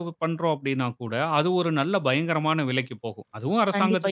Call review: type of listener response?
taking over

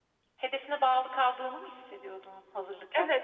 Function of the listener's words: taking over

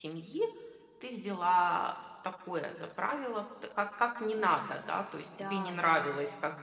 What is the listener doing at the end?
listening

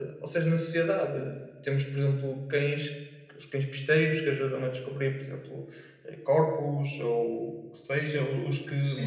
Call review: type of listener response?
listening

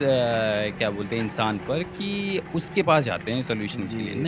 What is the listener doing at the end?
taking over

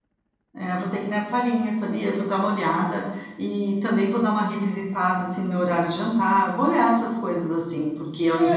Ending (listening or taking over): taking over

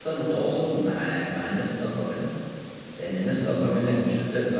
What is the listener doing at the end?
listening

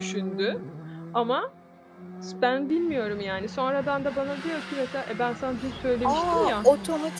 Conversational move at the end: taking over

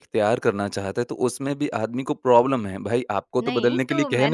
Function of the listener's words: taking over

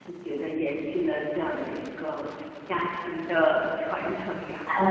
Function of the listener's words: taking over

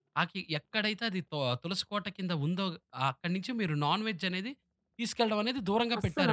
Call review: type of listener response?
taking over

